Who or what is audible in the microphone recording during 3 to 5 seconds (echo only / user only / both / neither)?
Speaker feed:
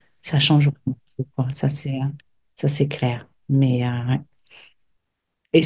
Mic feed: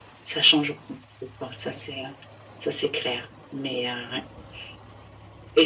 echo only